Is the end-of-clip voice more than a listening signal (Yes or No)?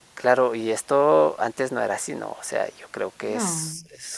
No